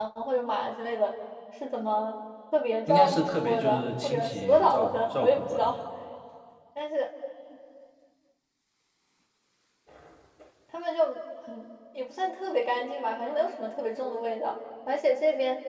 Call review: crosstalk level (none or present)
present